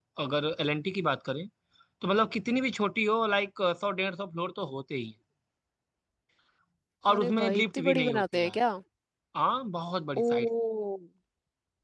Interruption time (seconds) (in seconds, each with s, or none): 7.1 s